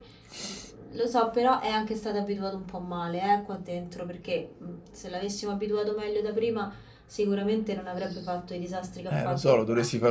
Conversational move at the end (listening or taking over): taking over